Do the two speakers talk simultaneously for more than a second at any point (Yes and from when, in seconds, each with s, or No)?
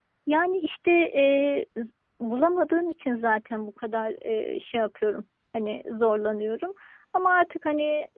No